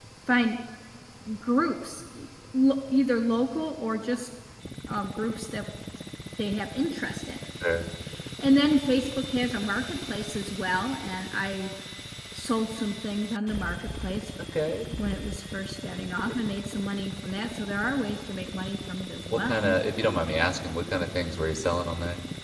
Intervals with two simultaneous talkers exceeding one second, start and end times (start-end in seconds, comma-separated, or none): none